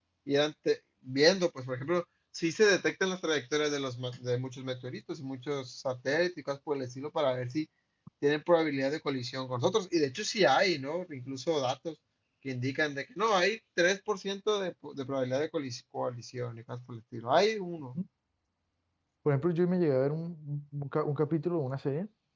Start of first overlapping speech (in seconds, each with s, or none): none